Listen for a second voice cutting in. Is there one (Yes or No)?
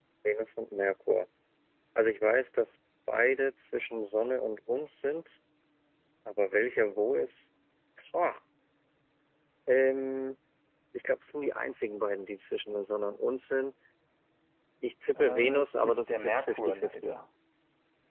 Yes